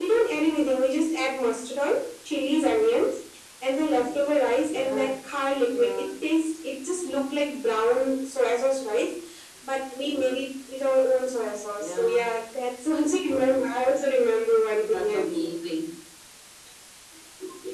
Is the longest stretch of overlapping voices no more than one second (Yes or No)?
Yes